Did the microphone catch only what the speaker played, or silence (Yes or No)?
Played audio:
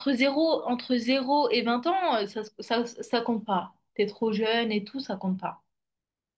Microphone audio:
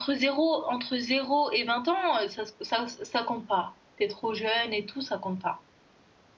Yes